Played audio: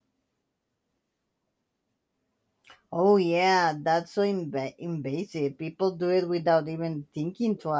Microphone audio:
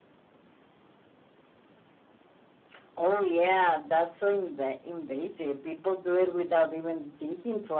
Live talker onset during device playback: none

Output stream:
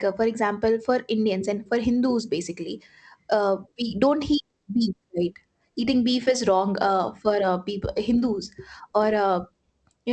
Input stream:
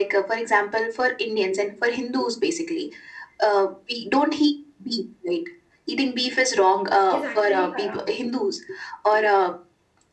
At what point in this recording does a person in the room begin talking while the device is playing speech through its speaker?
7 s

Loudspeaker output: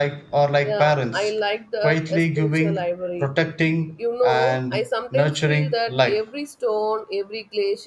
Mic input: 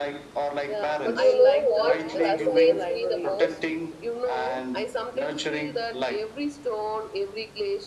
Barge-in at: 1 s

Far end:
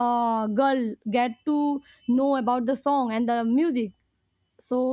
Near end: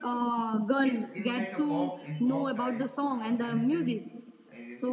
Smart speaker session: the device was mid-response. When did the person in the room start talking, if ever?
1 s

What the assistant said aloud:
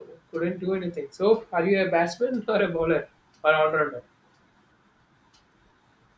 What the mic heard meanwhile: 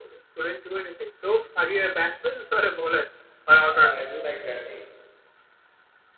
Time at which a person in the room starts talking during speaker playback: 4 s

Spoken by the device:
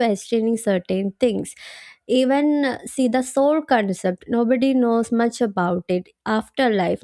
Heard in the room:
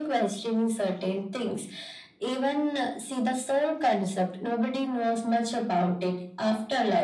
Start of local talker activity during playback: none

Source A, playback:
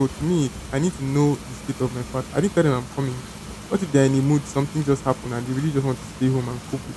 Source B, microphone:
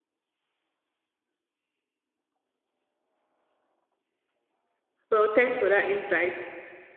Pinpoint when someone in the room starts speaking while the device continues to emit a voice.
5 s

